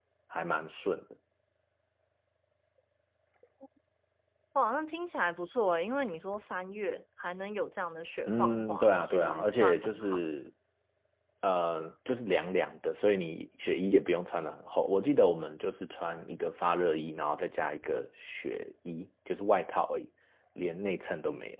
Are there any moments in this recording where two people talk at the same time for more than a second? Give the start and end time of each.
8.3-10.2

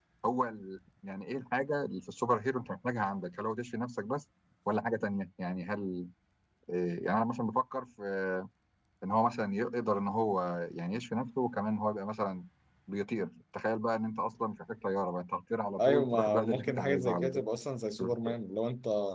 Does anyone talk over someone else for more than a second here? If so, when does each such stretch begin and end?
15.8-17.4

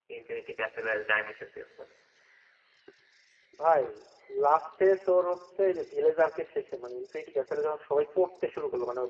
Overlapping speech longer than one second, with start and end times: none

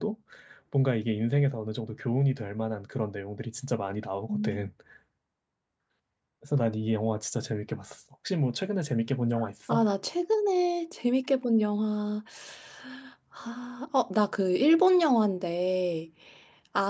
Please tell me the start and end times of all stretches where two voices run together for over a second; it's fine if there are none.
none

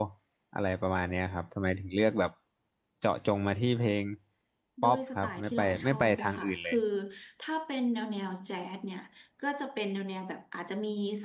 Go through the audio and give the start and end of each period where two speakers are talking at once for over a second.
4.8-6.8

